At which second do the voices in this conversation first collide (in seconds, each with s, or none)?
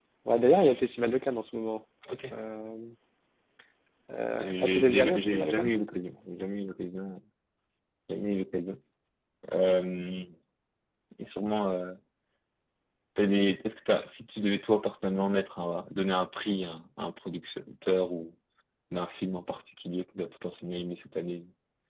4.4 s